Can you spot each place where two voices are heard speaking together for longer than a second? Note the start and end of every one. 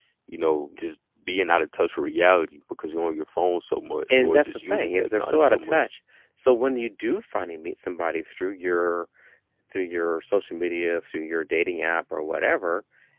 4.1-5.8

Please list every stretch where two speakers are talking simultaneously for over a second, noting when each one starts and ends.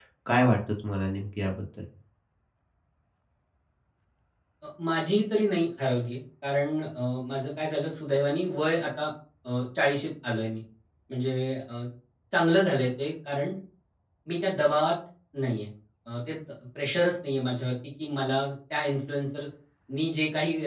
none

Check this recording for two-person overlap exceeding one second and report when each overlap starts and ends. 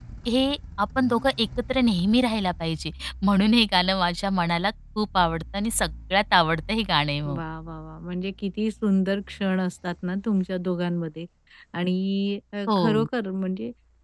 none

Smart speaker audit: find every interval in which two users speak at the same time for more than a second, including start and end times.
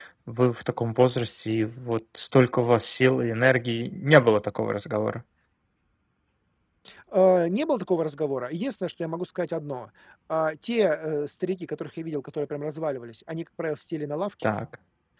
none

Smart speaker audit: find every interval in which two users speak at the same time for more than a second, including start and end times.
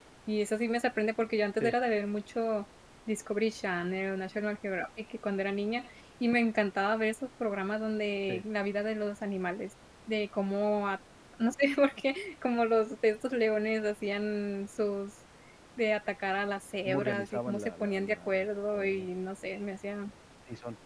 16.9-19.1

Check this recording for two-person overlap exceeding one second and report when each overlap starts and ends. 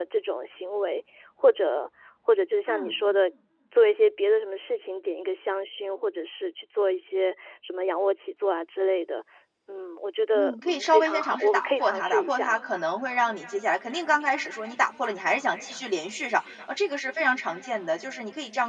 10.4-12.6

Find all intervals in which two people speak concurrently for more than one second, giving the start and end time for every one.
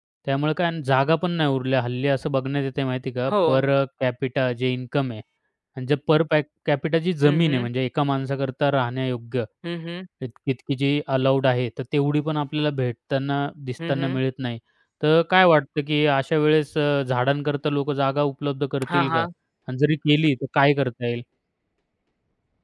none

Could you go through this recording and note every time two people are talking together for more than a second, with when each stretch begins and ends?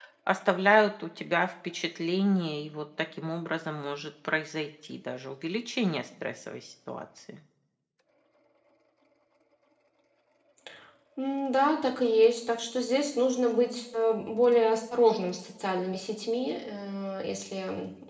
none

